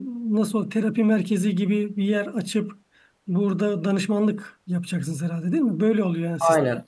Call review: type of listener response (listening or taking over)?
taking over